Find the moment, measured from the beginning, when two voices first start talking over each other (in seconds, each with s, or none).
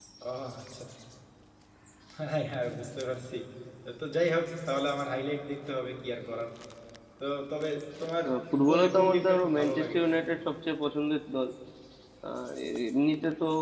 8.2 s